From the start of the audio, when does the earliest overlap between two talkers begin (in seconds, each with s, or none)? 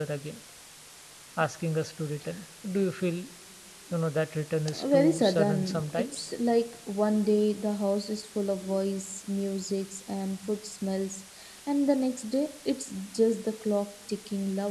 4.7 s